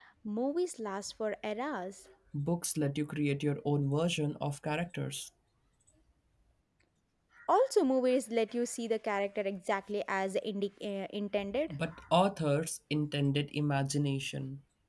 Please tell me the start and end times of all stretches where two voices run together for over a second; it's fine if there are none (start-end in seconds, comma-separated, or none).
none